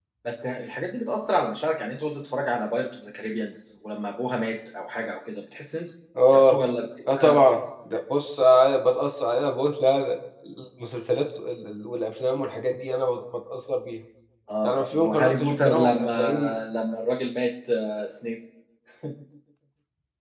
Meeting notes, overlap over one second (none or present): present